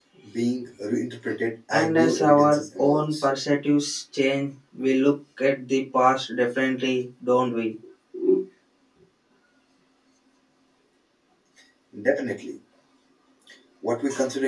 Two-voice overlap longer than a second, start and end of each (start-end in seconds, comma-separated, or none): 1.7-3.2